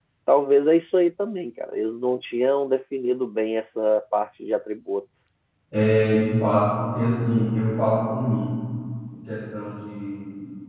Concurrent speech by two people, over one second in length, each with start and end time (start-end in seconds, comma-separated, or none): none